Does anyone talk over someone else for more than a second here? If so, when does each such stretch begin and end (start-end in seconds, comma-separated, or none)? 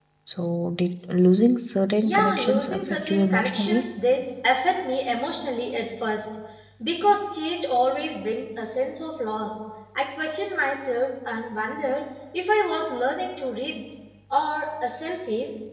2.0-3.9